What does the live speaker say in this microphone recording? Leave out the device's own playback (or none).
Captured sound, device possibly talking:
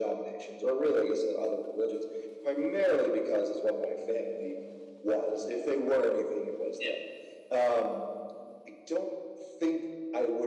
none